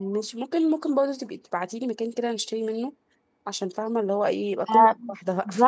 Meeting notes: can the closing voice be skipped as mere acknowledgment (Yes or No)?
No